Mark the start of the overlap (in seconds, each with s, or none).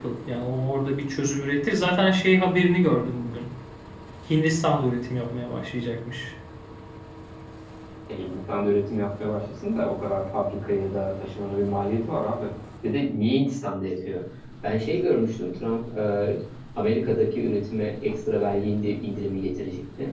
none